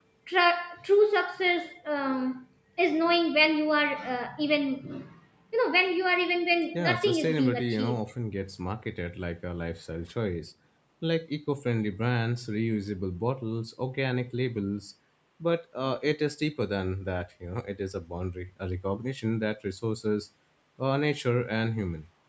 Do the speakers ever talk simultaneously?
Yes, from 6.7 s

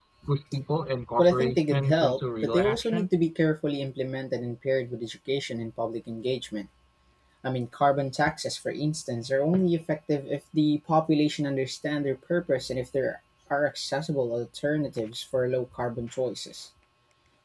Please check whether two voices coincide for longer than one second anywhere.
Yes, from 1.2 s

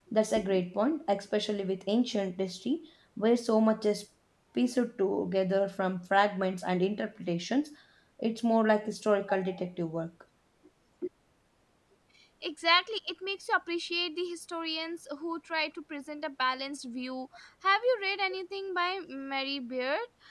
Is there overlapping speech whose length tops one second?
No

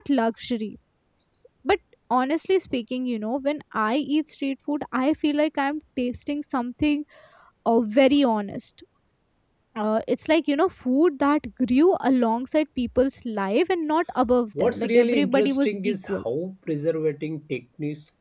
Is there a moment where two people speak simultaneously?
Yes, from 14.6 s

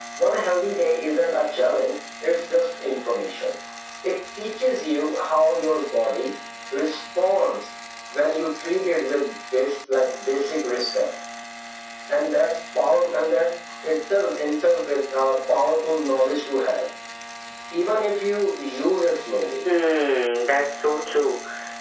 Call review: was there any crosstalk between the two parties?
No

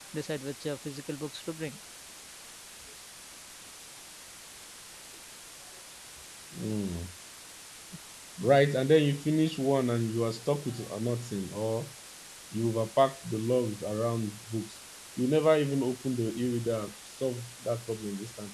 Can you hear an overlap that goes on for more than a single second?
No

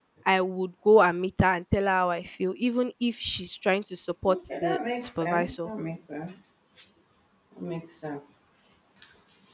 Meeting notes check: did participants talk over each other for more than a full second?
Yes, from 4.3 s

